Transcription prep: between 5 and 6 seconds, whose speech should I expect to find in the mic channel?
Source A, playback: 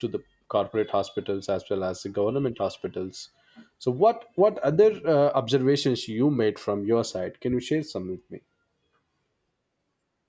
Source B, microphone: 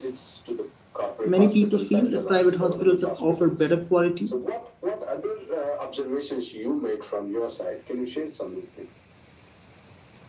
echo only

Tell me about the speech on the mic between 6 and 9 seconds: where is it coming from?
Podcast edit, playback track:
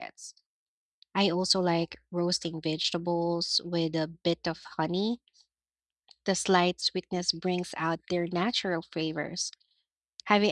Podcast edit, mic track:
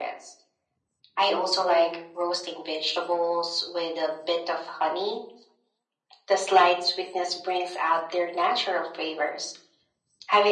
echo only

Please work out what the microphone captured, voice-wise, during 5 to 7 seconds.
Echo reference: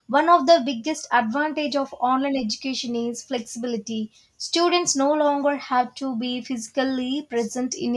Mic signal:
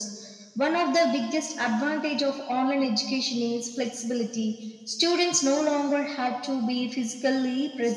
echo only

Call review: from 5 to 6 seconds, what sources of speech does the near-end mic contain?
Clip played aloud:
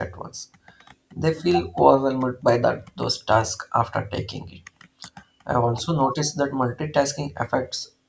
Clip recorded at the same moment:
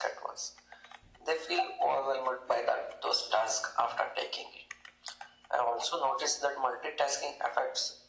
echo only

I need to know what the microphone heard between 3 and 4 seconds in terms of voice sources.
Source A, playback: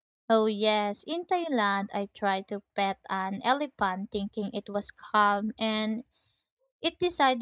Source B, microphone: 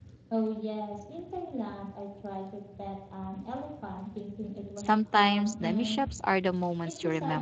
echo only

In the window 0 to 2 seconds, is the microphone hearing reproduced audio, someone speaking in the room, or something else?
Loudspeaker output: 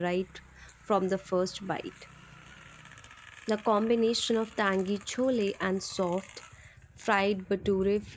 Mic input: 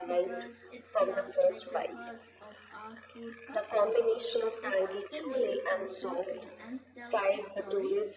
both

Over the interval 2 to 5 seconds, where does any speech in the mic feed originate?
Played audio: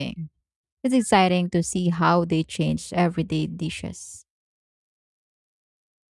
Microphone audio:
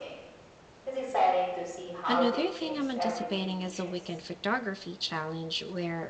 both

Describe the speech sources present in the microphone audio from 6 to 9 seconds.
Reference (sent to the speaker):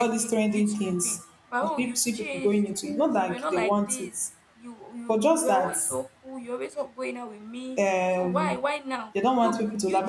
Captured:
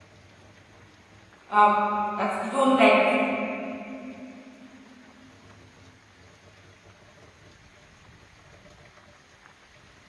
neither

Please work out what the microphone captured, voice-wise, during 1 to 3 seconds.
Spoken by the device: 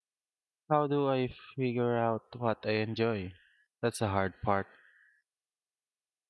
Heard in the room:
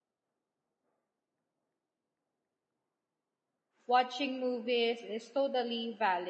neither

